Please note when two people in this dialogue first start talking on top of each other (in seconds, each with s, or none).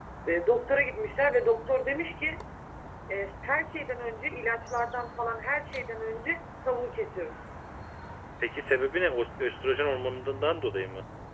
none